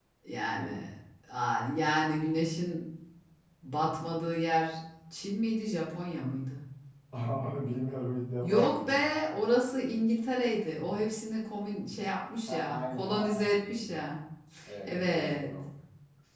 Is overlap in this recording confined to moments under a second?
No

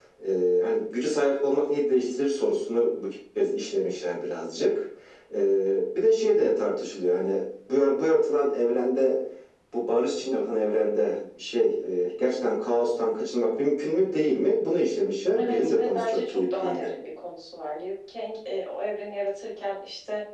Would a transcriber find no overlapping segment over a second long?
No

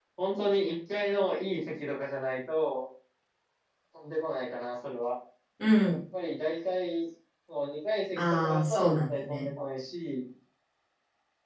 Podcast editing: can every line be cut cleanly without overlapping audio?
No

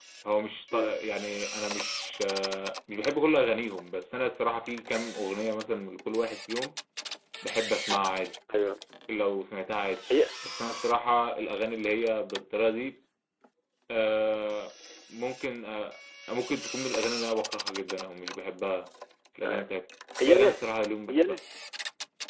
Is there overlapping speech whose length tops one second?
No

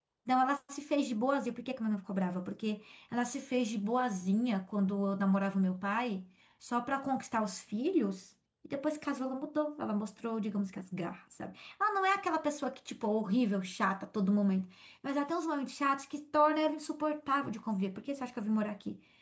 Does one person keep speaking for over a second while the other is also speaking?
No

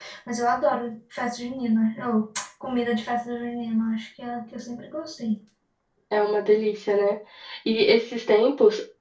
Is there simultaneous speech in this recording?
No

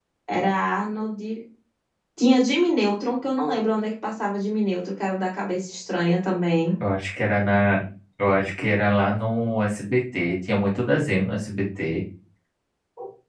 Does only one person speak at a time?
Yes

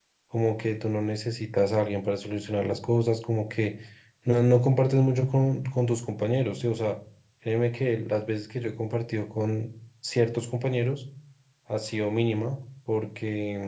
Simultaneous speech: No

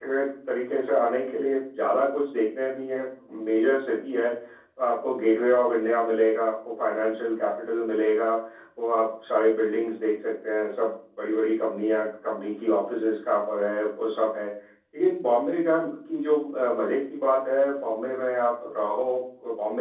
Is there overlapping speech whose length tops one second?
No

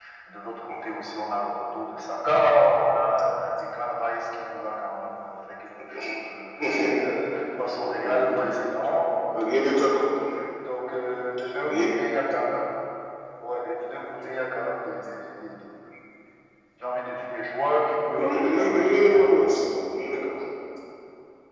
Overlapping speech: Yes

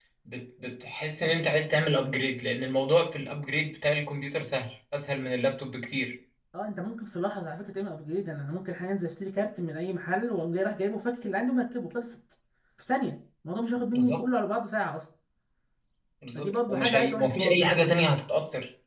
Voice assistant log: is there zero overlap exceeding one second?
No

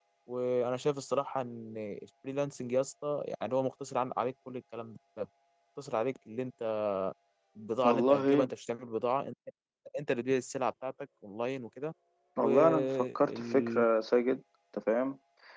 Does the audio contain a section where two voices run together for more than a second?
Yes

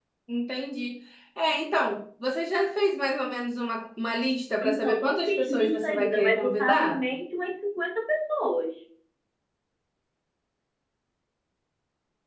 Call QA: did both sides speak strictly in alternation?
No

